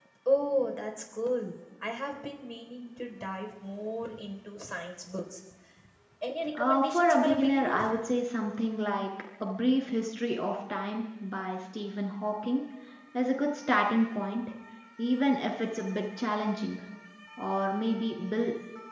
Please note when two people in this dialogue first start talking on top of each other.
6.5 s

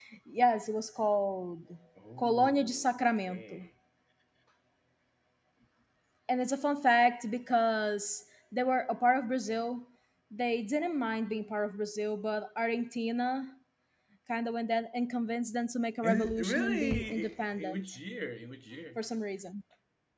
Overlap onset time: 2.2 s

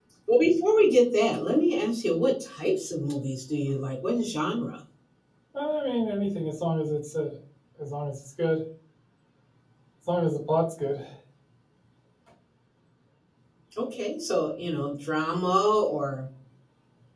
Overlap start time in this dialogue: none

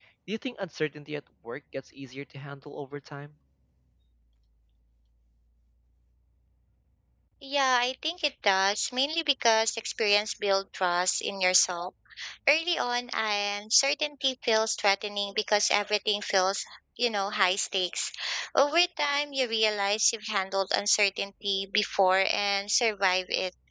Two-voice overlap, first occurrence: none

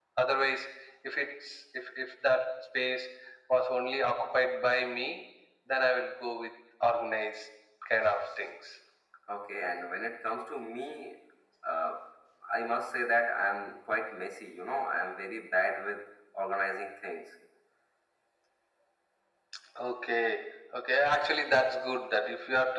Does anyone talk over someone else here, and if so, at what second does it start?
none

